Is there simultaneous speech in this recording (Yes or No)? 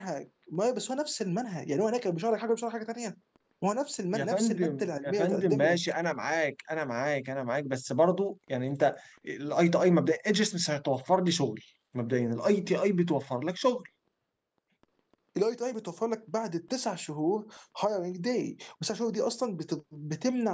Yes